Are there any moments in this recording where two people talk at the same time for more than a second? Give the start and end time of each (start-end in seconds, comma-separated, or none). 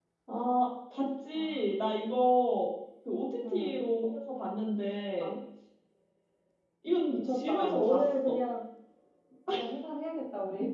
7.1-8.4